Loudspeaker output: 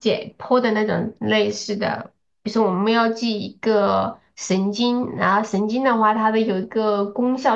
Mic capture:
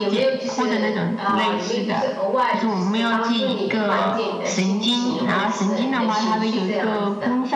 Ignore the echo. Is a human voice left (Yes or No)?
Yes